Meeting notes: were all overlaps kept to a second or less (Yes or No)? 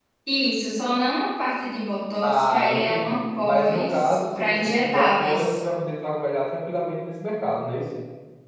No